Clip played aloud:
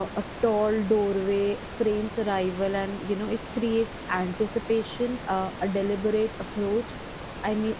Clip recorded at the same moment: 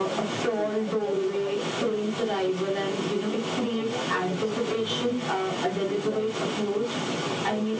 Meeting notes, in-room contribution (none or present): present